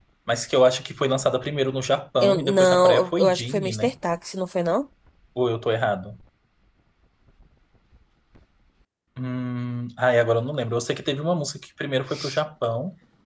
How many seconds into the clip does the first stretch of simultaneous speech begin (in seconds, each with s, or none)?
2.2 s